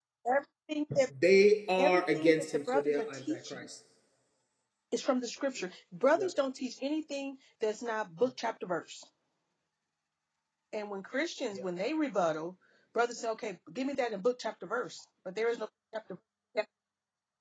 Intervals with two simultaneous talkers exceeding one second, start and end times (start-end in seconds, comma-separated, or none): 1.8-3.6